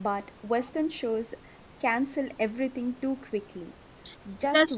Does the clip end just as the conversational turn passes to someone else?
No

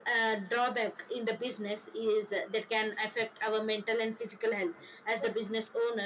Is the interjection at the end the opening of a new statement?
No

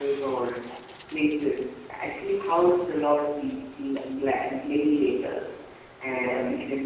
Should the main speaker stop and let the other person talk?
No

